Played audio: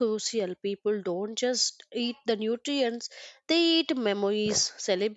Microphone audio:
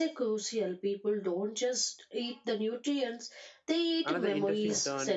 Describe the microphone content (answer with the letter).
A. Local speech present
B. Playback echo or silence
A